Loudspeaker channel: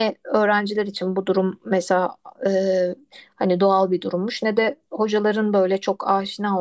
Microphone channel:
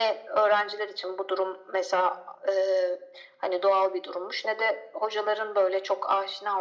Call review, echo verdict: present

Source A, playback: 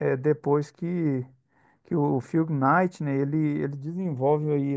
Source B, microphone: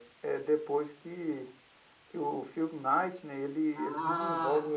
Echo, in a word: present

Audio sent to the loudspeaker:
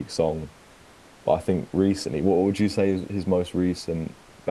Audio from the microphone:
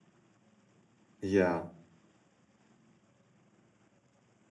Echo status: none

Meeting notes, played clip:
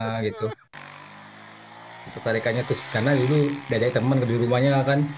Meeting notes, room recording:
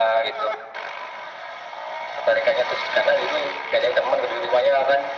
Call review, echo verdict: present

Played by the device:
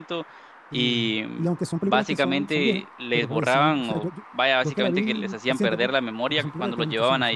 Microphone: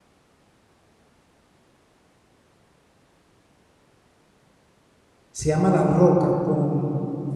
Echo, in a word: none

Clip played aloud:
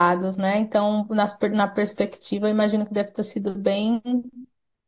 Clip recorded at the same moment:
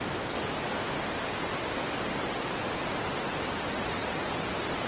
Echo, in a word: none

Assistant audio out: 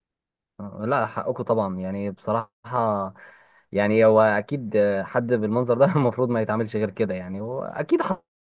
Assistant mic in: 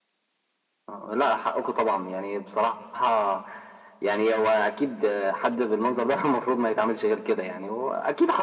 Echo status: present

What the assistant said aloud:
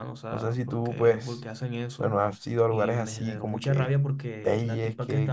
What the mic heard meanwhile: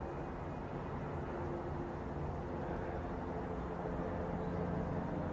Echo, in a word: none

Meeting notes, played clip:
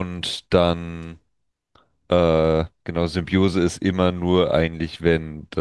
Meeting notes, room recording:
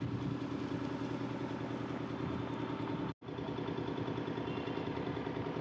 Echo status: none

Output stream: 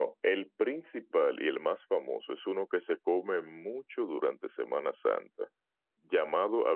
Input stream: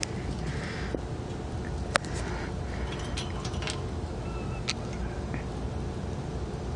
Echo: none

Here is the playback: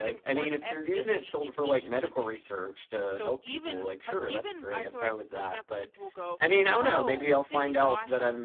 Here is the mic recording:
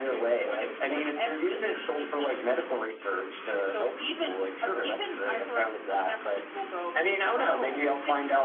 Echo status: present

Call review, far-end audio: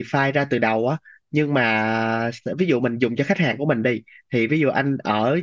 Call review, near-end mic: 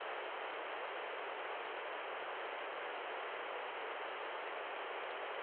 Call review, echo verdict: none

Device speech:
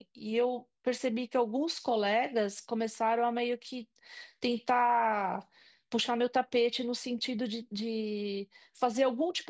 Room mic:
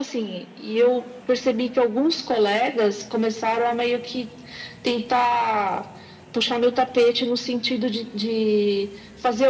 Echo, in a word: present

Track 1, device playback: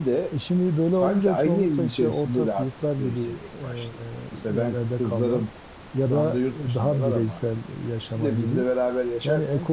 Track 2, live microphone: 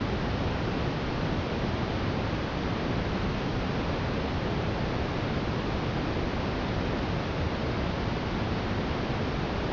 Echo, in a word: none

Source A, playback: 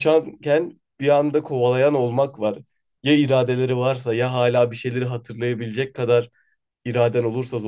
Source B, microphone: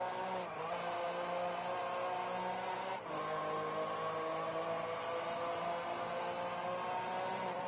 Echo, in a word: none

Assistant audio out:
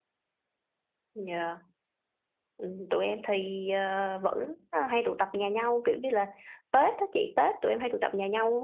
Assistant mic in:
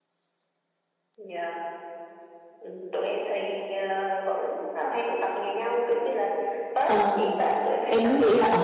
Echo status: present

